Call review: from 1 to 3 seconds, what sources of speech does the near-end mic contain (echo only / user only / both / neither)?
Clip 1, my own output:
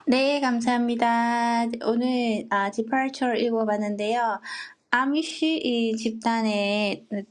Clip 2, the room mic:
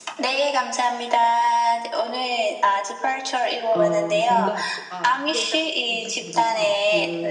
echo only